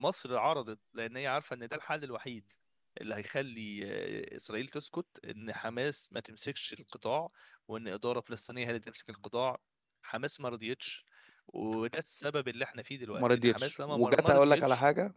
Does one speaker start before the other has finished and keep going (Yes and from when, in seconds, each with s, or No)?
Yes, from 13.1 s